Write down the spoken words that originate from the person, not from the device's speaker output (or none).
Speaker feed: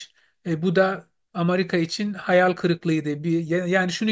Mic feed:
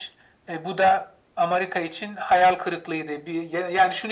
none